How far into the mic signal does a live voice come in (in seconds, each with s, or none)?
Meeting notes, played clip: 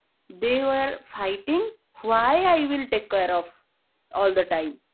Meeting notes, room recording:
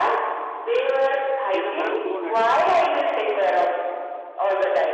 1.6 s